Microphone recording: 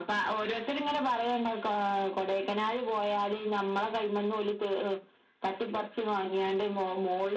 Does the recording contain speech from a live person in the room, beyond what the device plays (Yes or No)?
No